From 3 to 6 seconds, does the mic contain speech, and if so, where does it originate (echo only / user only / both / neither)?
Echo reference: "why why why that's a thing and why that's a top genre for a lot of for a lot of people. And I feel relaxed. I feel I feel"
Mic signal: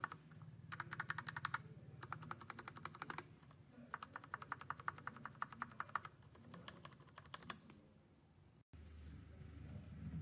neither